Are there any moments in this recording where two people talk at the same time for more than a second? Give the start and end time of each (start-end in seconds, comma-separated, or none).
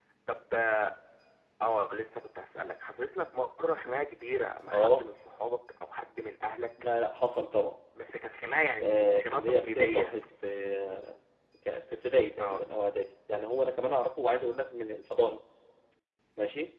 8.8-10.1